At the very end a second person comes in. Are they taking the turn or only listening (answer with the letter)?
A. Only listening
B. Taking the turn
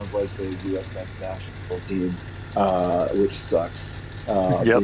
A